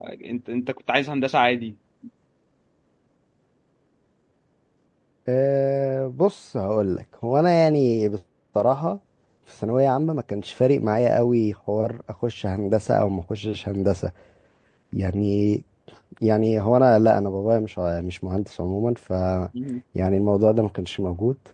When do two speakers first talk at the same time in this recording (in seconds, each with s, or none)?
none